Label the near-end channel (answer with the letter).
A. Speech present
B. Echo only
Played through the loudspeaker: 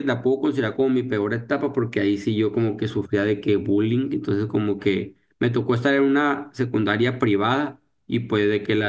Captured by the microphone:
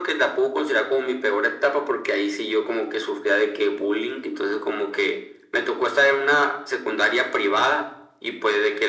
B